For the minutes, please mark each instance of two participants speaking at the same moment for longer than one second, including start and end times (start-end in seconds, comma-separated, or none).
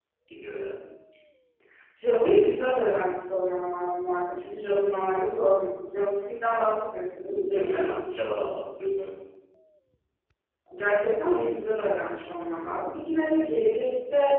none